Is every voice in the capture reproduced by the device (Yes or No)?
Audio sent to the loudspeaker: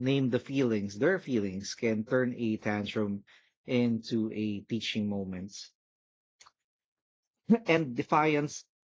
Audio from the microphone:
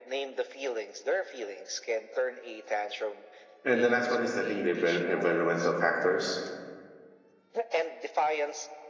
No